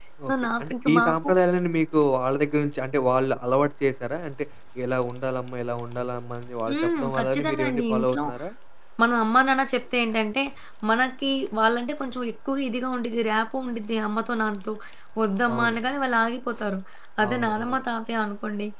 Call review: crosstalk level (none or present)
present